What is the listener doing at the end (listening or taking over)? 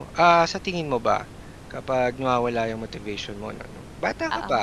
listening